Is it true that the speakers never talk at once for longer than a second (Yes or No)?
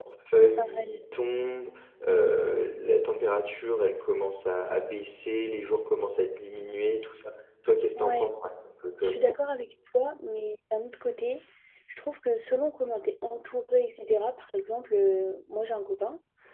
Yes